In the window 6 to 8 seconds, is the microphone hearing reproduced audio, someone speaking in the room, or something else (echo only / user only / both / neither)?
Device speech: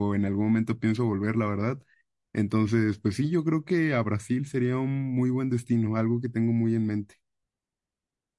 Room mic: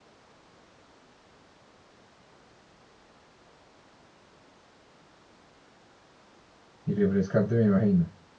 user only